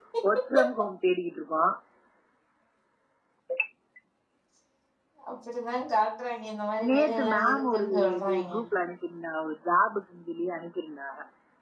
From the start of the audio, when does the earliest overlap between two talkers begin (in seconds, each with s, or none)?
6.8 s